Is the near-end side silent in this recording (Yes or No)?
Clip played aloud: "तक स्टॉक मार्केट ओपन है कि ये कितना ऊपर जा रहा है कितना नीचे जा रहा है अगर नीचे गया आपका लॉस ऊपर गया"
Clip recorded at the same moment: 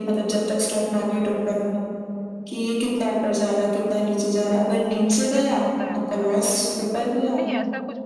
No